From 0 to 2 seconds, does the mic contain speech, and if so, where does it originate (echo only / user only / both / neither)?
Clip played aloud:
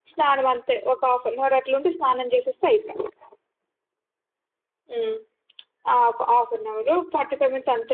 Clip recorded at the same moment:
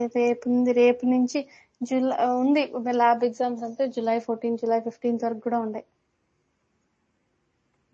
user only